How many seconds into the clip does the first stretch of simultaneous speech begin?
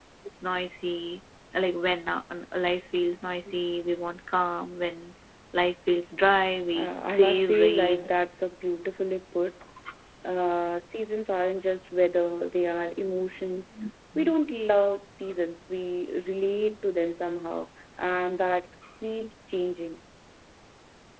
6.7 s

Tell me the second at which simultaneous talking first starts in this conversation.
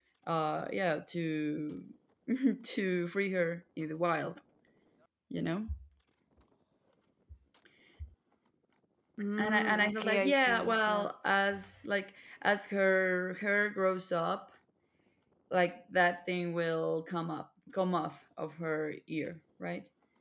9.4 s

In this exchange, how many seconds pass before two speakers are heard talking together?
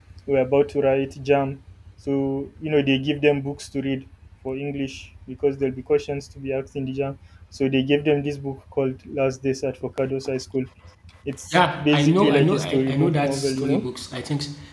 11.5 s

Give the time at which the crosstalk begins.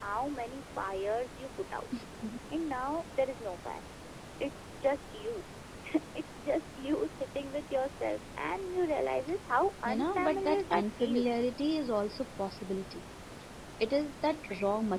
9.8 s

